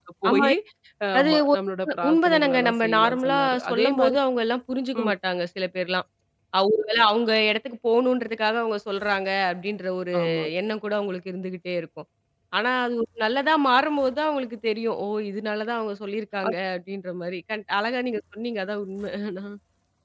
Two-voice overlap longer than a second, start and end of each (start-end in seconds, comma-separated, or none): 2.1-4.2